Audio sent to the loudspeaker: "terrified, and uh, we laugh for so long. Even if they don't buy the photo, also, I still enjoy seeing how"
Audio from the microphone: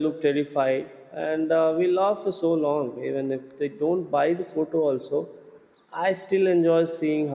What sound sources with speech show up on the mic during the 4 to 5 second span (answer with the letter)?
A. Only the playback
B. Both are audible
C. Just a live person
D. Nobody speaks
A